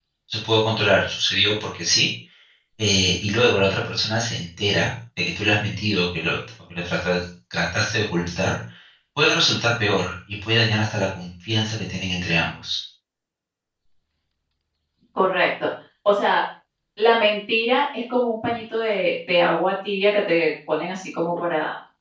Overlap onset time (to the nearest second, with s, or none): none